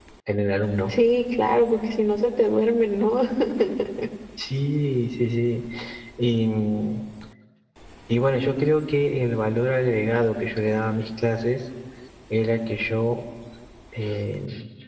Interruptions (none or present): none